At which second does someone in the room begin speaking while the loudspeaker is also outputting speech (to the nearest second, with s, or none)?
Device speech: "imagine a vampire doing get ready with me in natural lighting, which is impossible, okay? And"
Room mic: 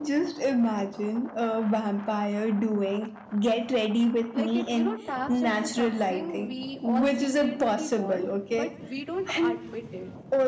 4 s